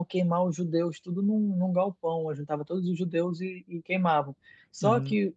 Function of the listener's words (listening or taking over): listening